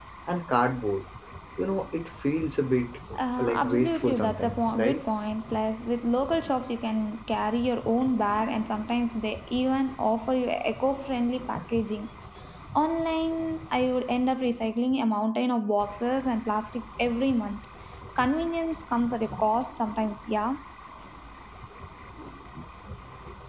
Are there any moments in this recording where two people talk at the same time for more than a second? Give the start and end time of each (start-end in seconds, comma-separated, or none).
3.4-5.0